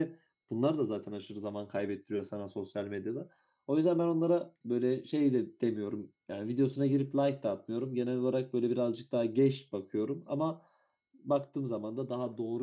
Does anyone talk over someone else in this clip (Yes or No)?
No